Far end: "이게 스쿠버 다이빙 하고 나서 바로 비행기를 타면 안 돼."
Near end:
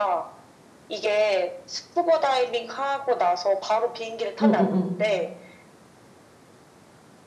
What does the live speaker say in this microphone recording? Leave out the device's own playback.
응응응응응응

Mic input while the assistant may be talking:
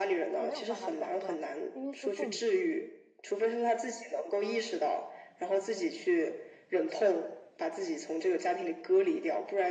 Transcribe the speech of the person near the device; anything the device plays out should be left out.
他没有办法斩断，因为是父母，

